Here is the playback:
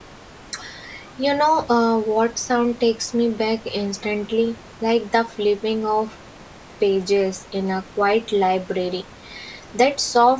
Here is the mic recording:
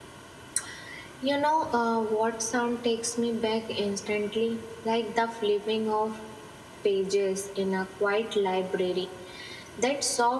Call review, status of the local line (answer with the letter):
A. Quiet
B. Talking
A